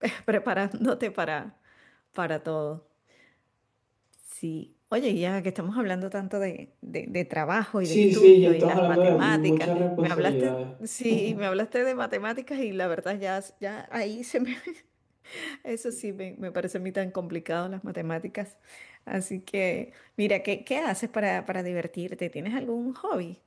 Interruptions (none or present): present